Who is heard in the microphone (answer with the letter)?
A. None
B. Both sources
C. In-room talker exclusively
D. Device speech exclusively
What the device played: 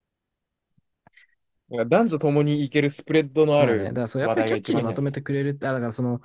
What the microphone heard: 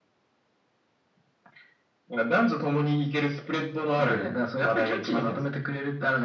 D